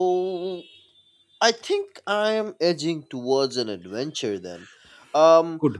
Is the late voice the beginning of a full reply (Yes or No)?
No